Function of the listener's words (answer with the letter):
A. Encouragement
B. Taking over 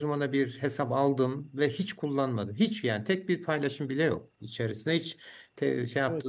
A